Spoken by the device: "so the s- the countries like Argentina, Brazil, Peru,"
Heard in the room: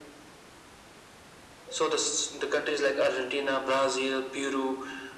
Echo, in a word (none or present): present